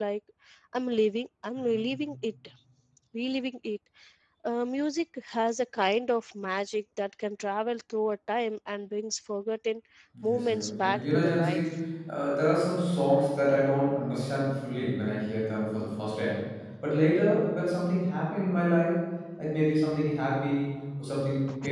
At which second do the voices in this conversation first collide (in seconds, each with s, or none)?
10.2 s